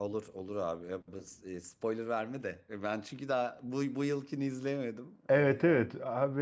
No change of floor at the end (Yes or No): No